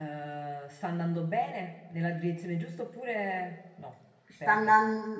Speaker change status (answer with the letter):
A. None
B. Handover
B